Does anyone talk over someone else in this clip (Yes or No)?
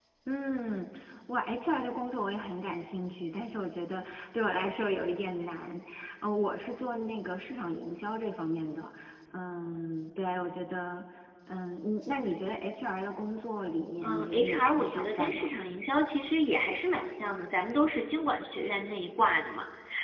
Yes